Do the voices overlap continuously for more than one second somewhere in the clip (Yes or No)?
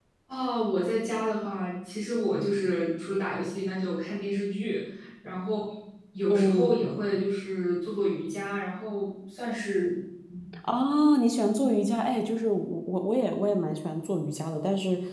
No